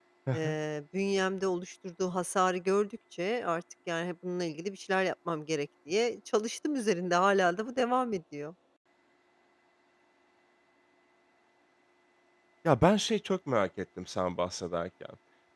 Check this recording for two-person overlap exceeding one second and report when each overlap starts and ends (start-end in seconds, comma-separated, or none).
none